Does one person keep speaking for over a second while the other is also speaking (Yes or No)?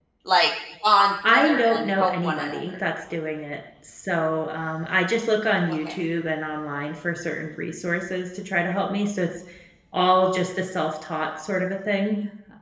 Yes